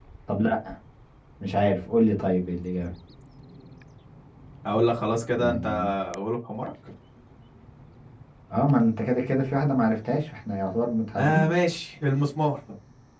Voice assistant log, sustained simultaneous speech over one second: none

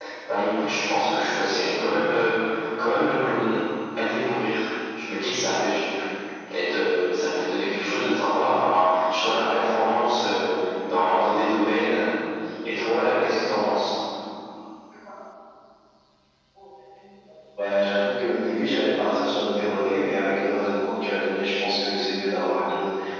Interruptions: none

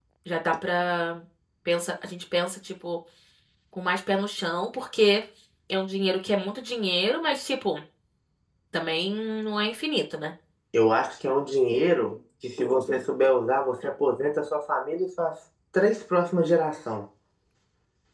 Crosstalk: none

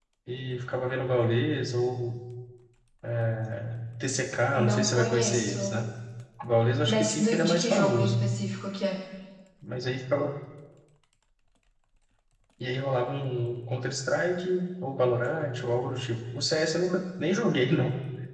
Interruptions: present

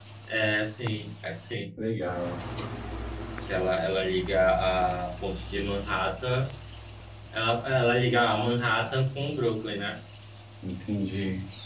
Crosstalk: none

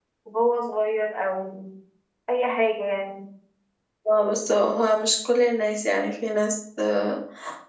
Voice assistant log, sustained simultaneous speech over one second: none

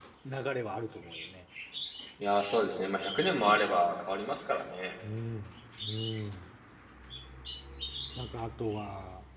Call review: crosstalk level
none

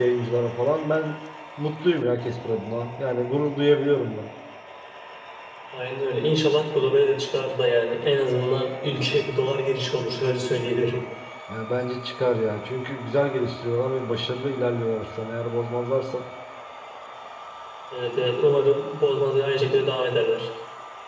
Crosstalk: none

